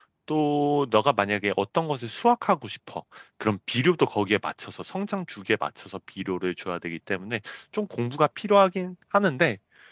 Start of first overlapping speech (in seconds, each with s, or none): none